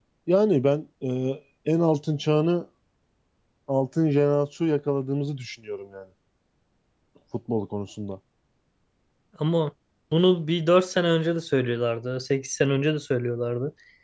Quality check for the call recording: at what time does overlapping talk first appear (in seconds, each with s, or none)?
none